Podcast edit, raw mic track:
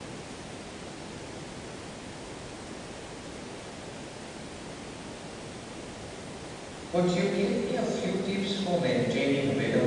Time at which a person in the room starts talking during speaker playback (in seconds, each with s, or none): 6.9 s